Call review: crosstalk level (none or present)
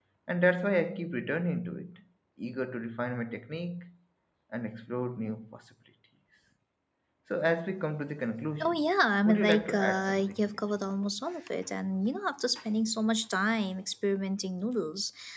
present